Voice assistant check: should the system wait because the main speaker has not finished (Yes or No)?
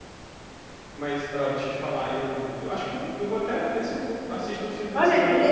No